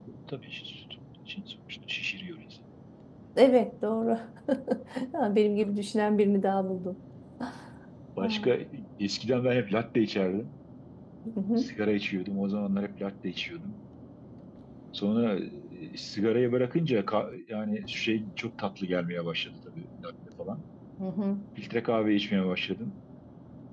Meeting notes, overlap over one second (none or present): none